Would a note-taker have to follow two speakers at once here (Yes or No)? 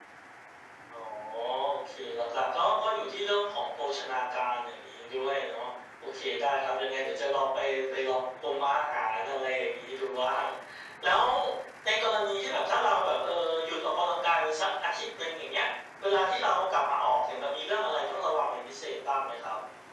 No